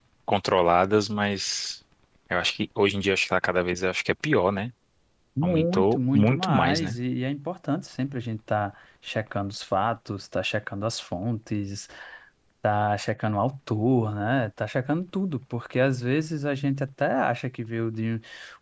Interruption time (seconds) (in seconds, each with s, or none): 5.4 s